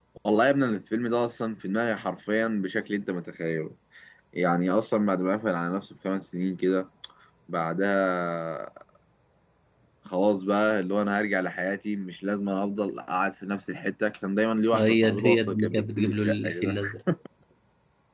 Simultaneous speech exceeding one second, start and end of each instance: 14.7-16.8

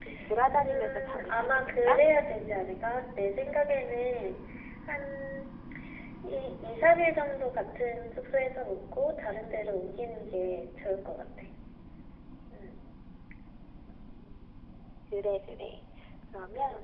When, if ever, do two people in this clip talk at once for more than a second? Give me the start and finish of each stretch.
0.6-2.0

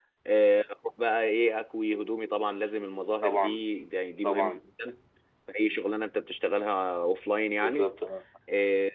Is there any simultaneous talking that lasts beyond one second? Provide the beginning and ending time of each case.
none

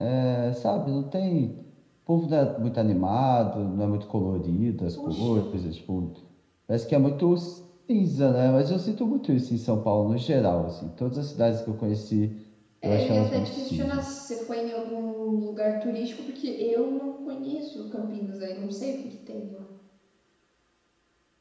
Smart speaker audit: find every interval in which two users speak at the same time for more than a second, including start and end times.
12.8-14.0

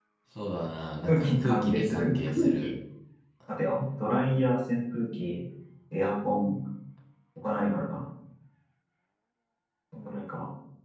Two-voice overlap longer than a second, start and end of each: 1.1-2.7

